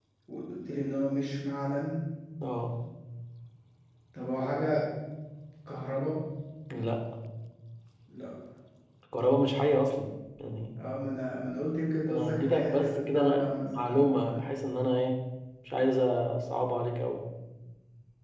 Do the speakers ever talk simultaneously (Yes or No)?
Yes